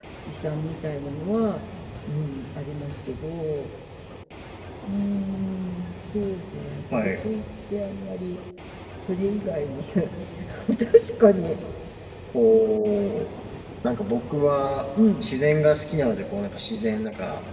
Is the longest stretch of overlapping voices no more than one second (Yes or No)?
Yes